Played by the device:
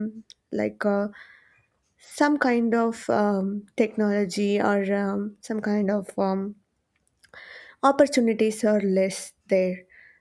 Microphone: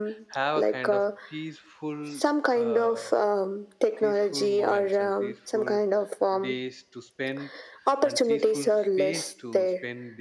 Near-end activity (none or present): present